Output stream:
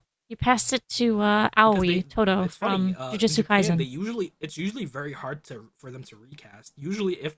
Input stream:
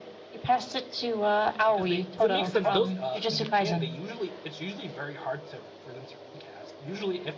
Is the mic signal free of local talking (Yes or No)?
No